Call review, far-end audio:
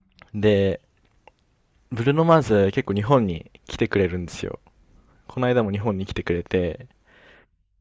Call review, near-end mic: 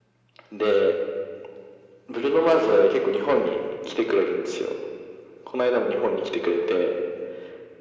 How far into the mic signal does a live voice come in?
none

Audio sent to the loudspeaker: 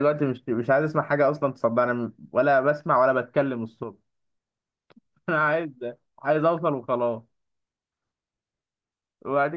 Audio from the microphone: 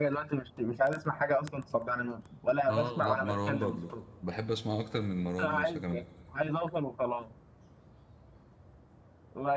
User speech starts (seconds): 2.7 s

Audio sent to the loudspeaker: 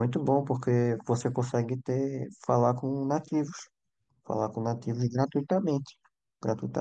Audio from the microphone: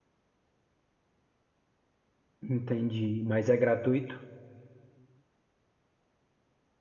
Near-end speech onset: 2.4 s

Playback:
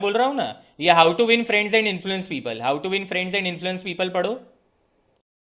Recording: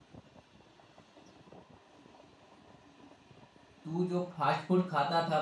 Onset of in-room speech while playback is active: 3.8 s

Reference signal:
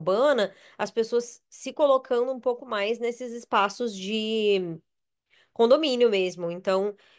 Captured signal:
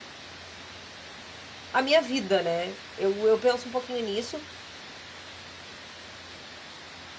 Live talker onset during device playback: 1.7 s

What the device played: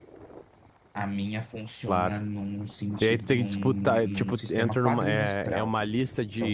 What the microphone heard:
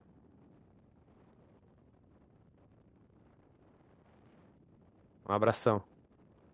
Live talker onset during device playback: 5.3 s

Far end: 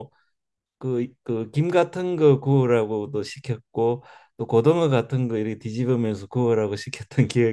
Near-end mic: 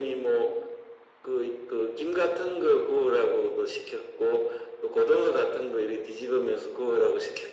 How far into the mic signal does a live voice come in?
none

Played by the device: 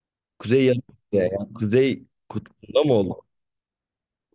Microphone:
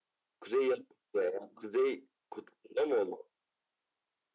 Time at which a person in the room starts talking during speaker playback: none

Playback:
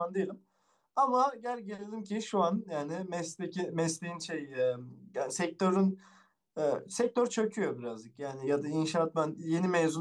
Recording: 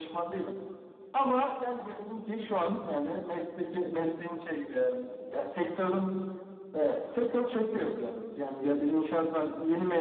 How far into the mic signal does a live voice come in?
none

